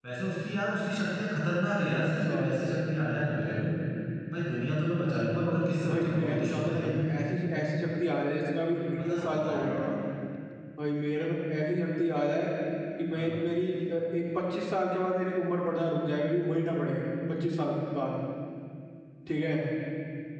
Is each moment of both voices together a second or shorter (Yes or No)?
No